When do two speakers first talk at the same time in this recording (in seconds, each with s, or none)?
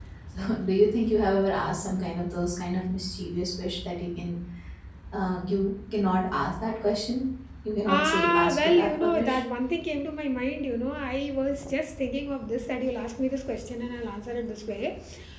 7.9 s